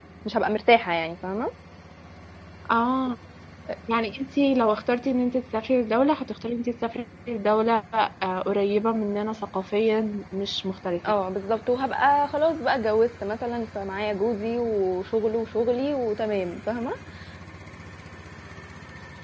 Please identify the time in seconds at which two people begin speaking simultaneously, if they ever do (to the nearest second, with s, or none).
none